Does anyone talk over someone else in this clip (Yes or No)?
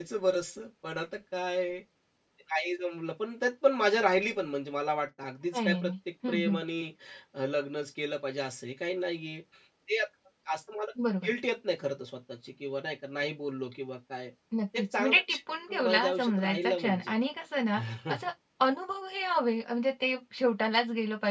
Yes